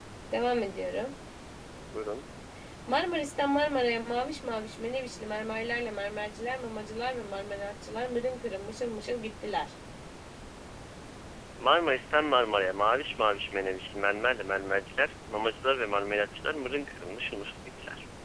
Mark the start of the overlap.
none

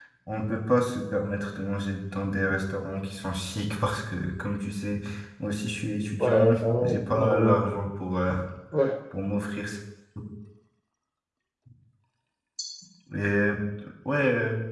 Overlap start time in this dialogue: 6.2 s

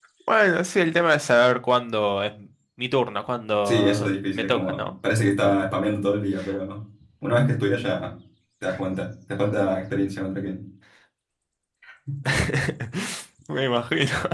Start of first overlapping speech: 3.6 s

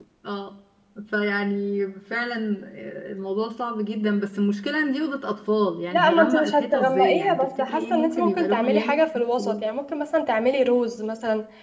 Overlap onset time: 5.9 s

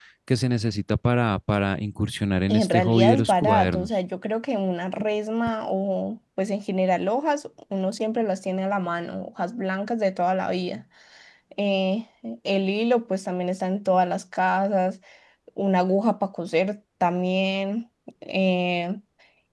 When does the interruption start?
2.5 s

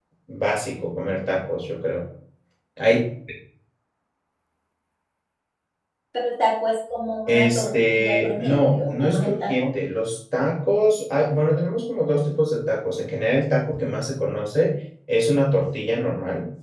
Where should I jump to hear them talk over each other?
7.3 s

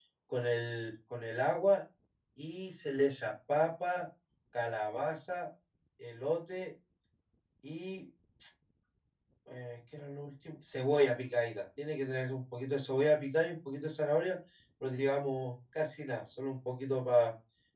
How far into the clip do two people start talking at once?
none

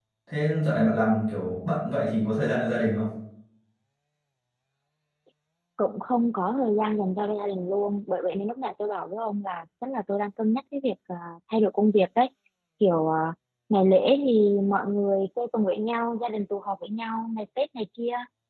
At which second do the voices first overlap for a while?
none

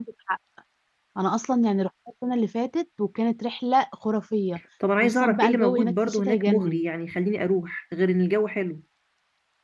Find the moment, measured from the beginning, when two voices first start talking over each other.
5.0 s

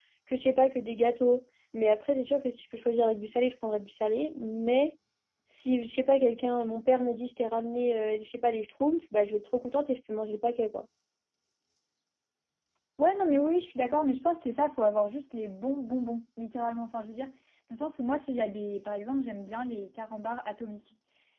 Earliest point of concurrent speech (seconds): none

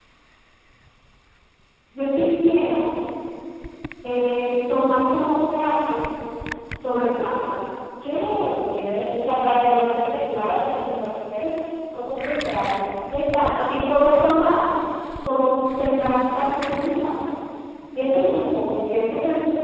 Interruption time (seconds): none

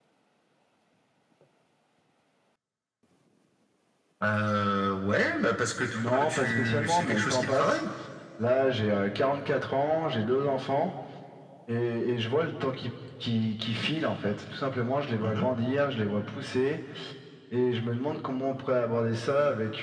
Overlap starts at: 5.9 s

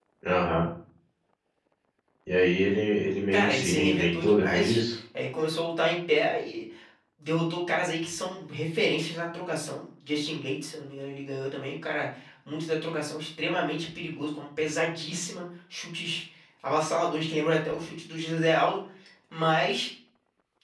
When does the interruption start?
3.3 s

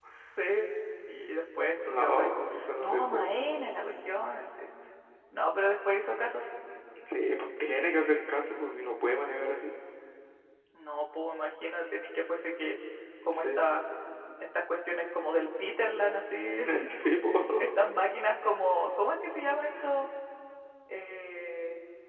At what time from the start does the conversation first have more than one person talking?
1.9 s

